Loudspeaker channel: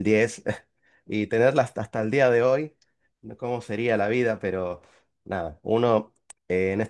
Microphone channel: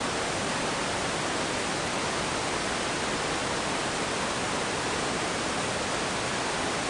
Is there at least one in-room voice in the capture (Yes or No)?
No